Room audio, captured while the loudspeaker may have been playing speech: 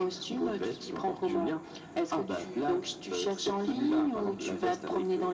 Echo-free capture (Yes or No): No